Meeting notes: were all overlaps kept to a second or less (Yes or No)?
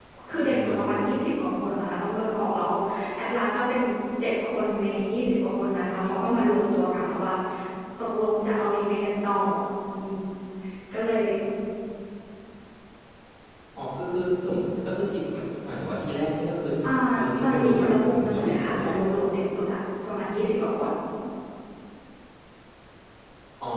No